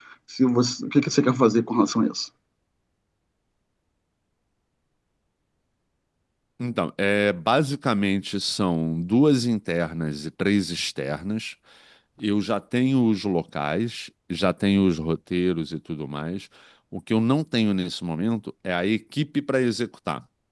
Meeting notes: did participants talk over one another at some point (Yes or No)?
No